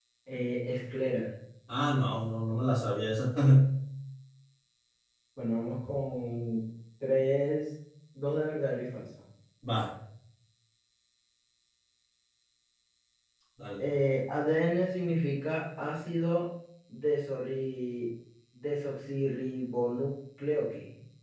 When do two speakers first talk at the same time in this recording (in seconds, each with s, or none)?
none